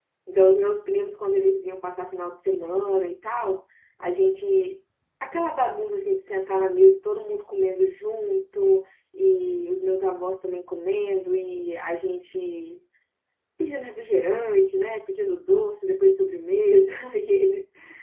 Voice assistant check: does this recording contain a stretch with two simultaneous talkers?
No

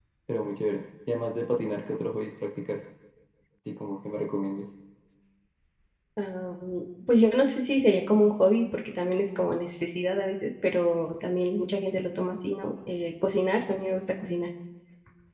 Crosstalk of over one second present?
No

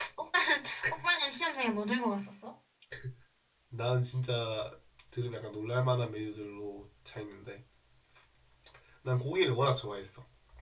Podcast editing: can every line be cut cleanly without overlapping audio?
Yes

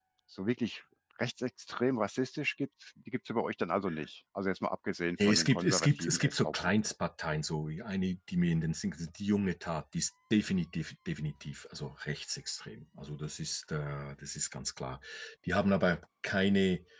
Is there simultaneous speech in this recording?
Yes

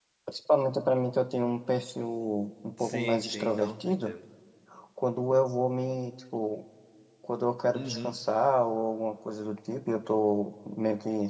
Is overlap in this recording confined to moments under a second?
No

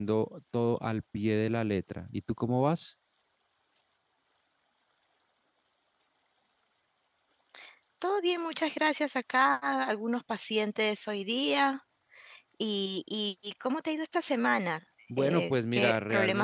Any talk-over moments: Yes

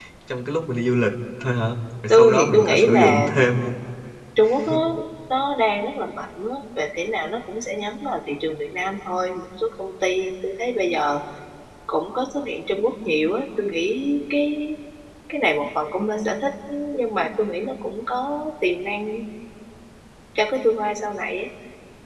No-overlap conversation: No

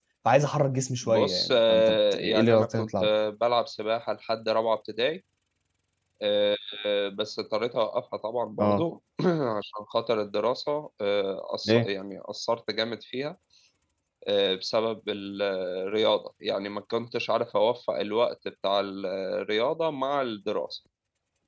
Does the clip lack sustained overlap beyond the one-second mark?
No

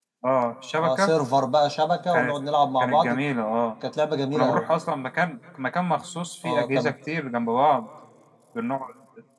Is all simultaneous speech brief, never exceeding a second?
Yes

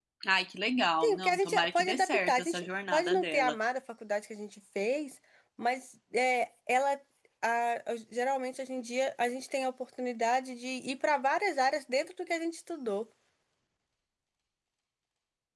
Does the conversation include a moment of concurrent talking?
Yes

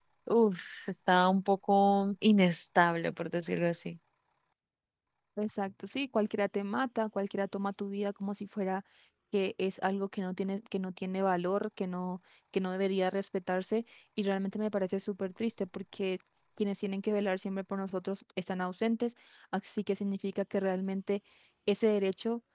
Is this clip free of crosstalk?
Yes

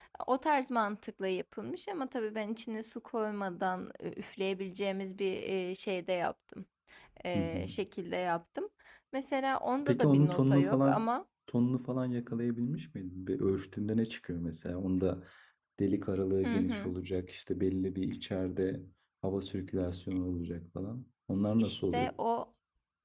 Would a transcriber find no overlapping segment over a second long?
No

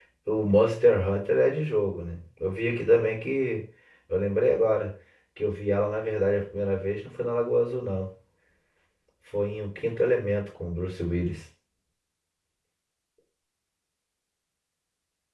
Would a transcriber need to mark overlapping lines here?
No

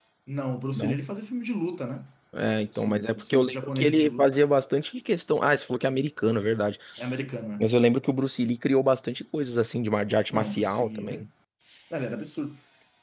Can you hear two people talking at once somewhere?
Yes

